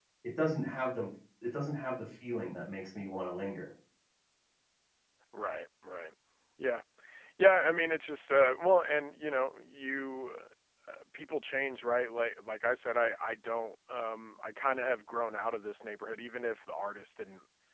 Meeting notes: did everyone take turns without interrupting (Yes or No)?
Yes